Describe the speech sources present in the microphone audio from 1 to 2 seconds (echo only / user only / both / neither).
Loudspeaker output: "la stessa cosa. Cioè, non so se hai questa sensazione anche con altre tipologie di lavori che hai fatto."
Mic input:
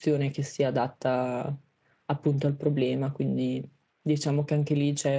user only